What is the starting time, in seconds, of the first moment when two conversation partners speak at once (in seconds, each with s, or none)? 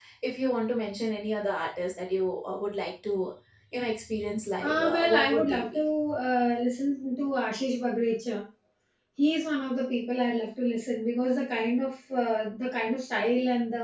4.6 s